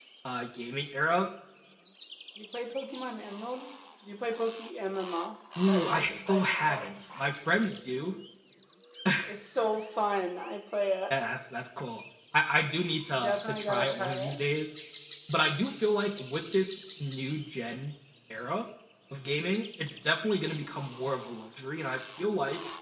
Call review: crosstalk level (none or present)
present